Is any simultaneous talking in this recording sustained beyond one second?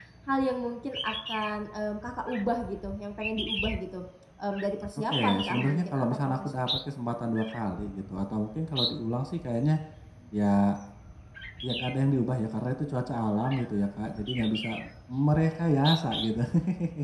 Yes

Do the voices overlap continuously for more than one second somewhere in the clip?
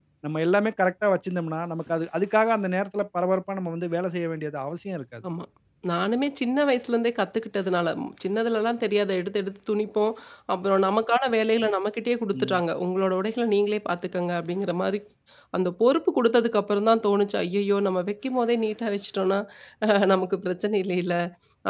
No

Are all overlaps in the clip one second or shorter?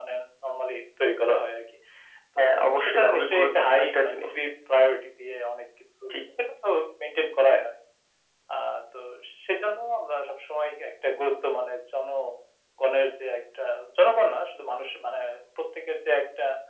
No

